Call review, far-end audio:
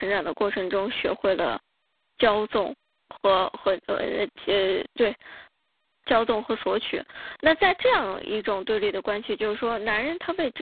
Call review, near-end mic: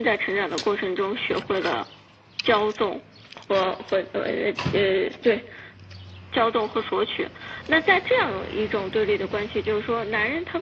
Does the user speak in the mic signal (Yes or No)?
No